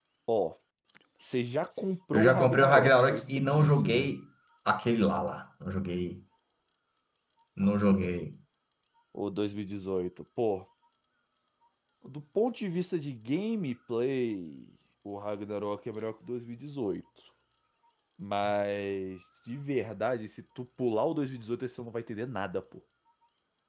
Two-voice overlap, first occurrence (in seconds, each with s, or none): 2.1 s